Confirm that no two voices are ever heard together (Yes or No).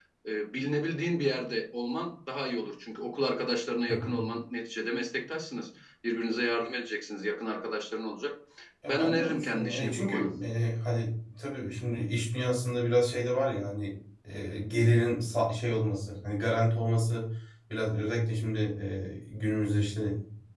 No